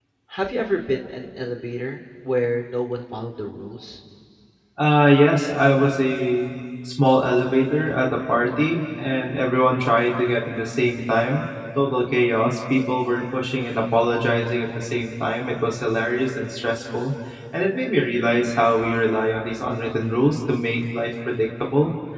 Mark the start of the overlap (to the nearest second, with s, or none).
none